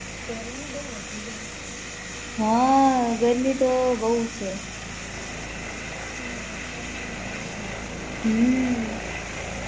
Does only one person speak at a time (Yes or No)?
Yes